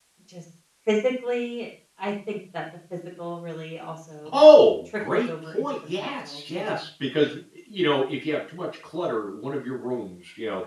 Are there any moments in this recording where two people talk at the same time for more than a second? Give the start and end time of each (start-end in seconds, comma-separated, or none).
5.0-6.8